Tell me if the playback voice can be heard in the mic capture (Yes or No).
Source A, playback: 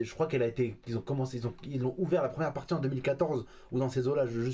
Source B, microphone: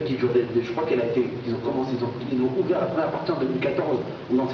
Yes